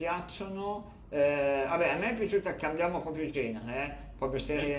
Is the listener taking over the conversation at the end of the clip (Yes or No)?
No